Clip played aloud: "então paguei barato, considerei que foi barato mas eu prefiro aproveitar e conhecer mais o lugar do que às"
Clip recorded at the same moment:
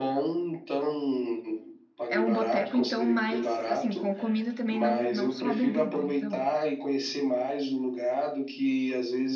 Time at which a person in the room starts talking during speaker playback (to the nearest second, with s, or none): 2 s